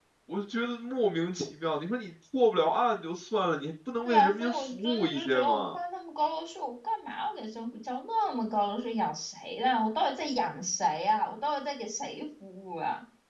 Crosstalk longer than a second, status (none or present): present